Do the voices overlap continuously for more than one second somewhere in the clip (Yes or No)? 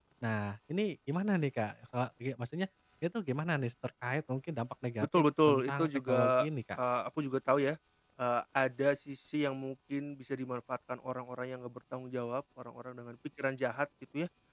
Yes